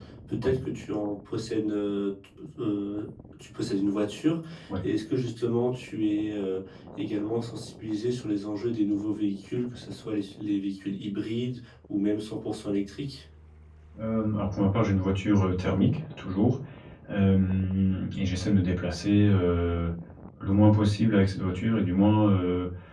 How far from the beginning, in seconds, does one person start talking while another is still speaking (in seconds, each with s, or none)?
none